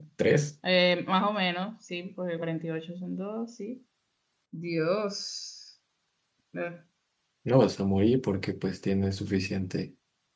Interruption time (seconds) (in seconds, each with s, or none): none